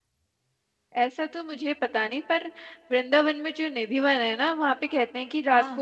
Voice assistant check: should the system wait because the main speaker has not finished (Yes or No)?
Yes